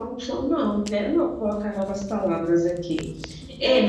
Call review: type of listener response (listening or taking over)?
listening